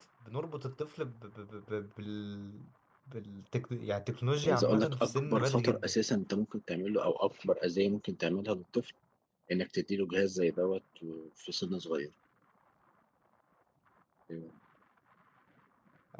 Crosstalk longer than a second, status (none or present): present